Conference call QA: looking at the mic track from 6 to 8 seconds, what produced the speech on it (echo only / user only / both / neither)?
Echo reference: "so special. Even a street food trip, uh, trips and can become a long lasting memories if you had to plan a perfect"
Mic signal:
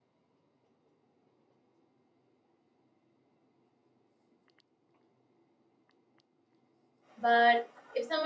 user only